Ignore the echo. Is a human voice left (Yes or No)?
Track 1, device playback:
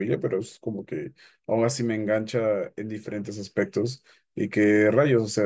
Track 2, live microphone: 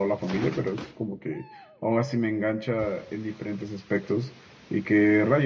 No